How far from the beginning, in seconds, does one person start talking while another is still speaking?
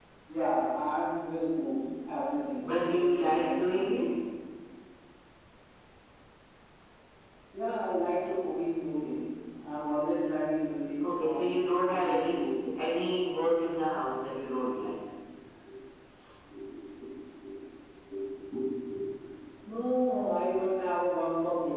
2.6 s

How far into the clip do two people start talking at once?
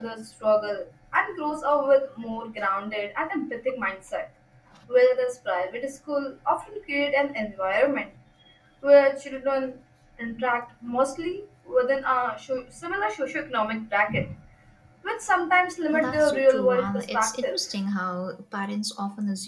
15.9 s

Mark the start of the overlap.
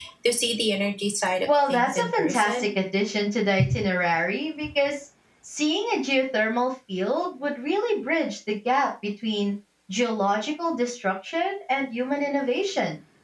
1.5 s

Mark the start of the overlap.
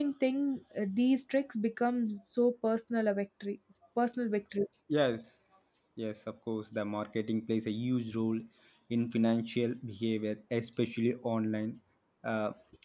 none

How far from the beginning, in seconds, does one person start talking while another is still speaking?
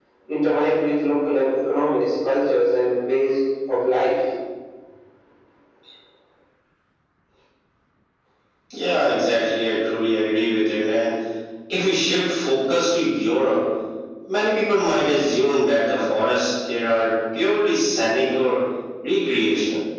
none

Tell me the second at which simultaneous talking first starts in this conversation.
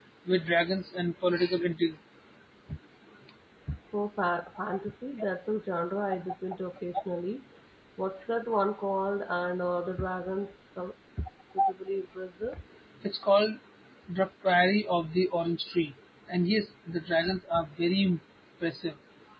none

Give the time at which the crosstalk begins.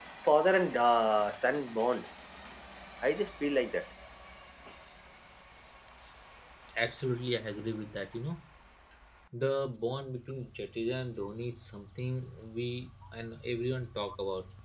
none

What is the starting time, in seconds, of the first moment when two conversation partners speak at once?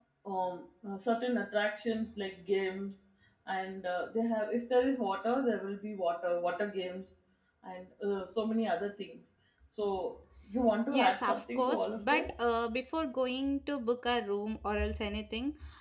10.9 s

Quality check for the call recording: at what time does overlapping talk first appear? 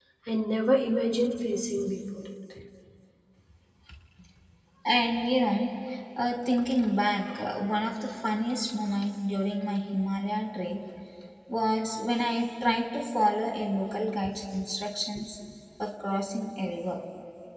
none

